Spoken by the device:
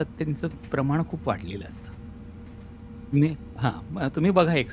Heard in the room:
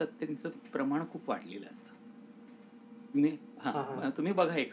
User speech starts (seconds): 3.7 s

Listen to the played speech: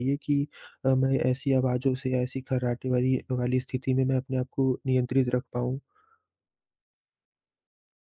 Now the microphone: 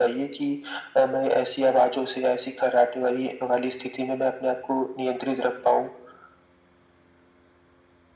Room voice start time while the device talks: none

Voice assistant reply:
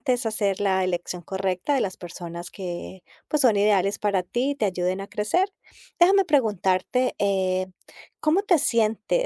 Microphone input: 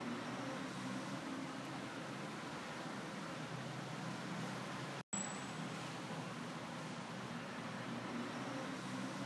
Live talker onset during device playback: none

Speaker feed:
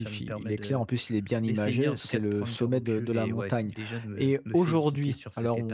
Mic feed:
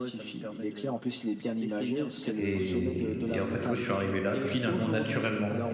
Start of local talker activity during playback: 2.4 s

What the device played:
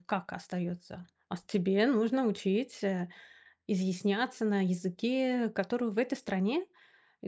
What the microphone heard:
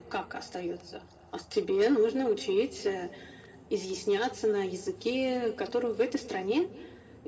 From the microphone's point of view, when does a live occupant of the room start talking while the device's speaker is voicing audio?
none

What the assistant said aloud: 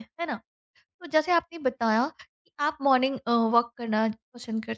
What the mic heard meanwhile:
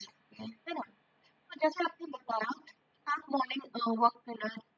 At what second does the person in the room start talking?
none

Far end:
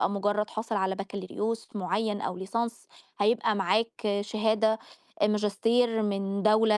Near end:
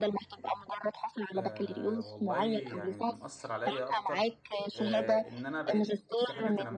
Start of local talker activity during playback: 1.4 s

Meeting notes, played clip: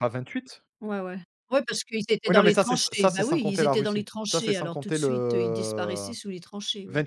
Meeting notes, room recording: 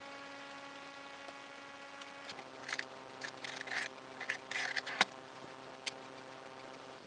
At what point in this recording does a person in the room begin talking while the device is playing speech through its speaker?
none

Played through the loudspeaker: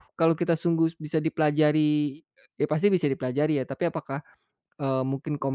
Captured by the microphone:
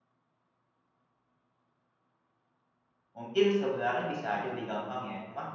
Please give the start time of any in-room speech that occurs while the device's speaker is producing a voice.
3.1 s

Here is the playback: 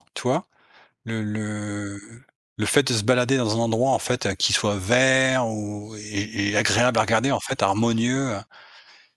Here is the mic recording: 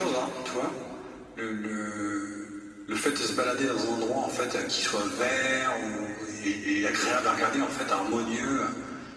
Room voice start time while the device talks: none

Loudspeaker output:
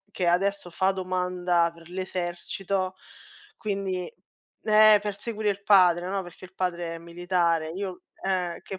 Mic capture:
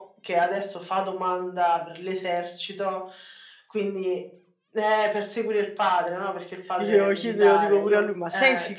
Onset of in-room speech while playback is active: 6.8 s

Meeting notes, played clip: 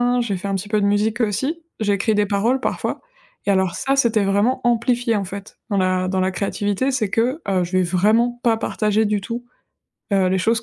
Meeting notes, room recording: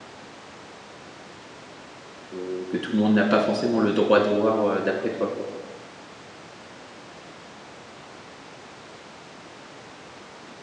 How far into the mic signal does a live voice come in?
2.2 s

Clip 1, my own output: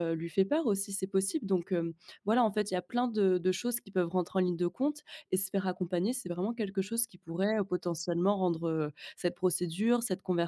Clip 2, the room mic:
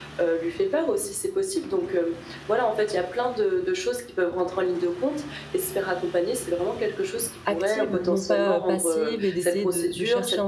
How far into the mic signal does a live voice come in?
7.4 s

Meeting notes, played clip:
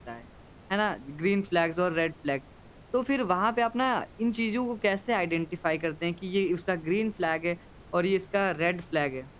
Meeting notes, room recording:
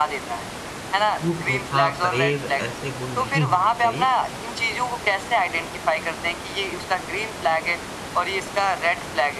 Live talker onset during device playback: 1.1 s

